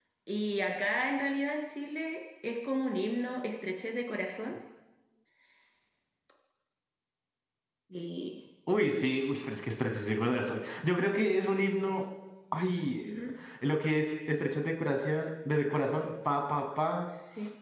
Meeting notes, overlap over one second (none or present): none